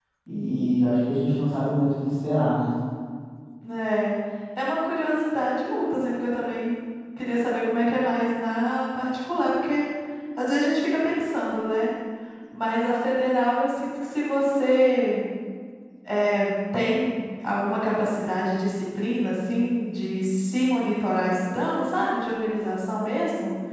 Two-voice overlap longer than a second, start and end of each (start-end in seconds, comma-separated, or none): none